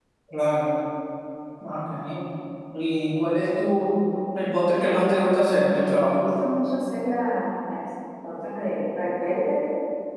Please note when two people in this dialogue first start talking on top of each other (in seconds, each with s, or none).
4.8 s